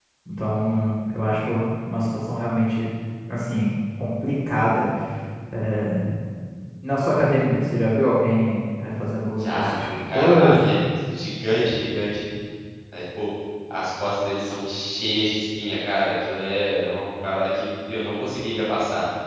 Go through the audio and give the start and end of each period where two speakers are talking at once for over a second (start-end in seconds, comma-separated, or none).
9.3-10.7